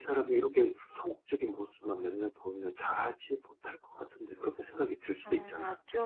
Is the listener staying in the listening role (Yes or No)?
No